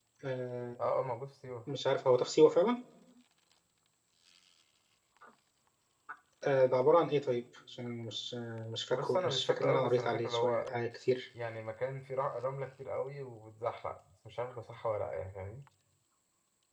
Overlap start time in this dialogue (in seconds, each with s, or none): 8.9 s